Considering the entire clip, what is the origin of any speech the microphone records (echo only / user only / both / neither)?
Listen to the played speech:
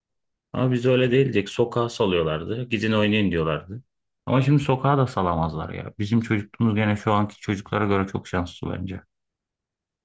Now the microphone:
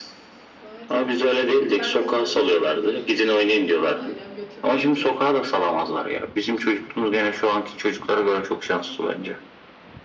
both